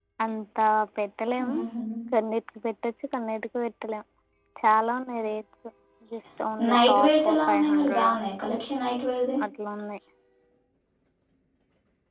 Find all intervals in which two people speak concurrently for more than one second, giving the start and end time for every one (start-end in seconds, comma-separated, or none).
6.7-8.1